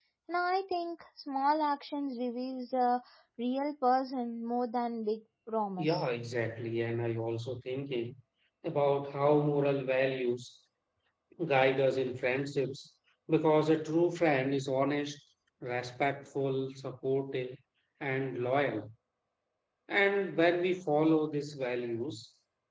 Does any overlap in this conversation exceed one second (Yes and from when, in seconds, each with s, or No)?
No